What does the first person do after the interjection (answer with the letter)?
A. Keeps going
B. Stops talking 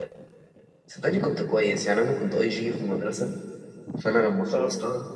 A